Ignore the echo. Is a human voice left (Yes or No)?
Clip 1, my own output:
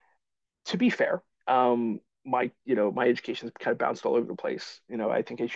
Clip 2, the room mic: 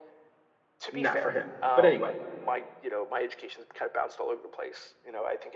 Yes